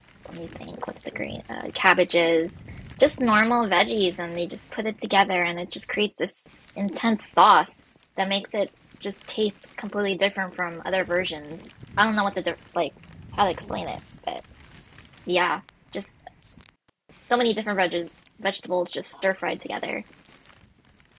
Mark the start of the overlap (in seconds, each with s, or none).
none